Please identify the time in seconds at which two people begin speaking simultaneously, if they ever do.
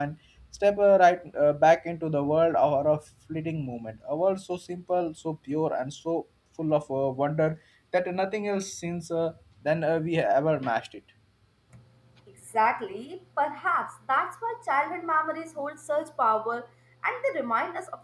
none

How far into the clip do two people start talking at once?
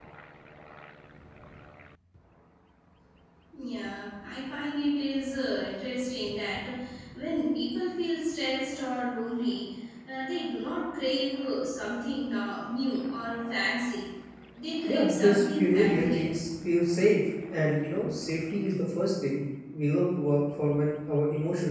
14.9 s

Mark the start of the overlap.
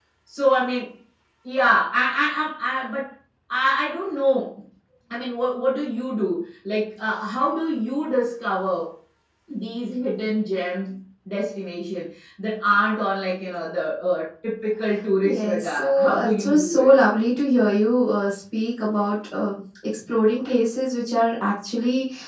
15.2 s

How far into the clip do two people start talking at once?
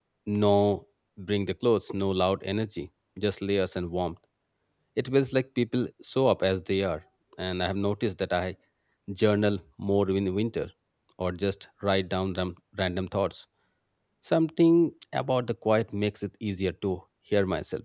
none

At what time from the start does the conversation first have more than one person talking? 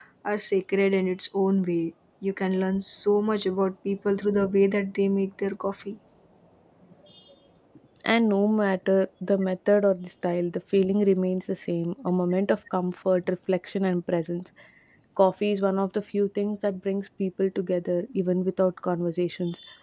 none

